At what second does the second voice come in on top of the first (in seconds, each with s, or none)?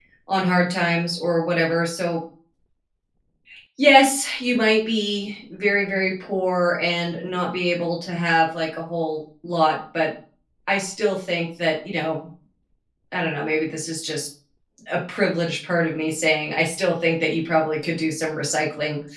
none